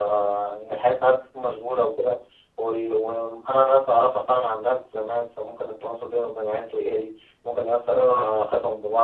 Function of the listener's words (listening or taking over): listening